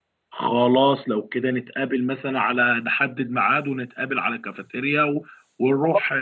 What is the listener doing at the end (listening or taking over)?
taking over